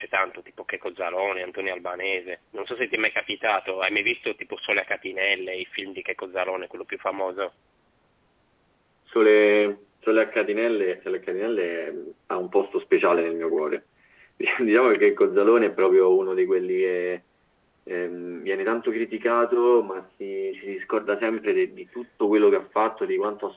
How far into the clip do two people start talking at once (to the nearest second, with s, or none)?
none